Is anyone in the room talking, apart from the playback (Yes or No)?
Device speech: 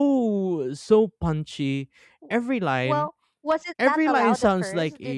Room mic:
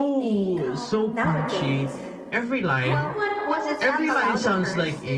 Yes